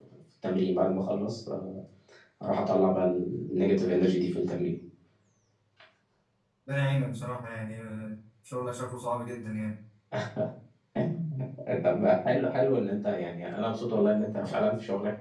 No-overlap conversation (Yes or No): Yes